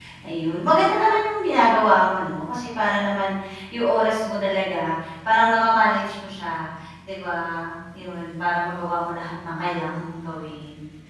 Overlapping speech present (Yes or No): No